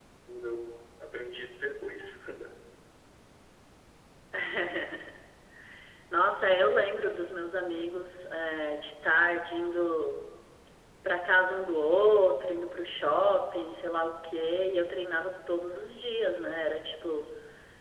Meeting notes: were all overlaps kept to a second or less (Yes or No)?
Yes